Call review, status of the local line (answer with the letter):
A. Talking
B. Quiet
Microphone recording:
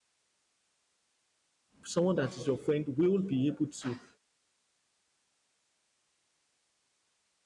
A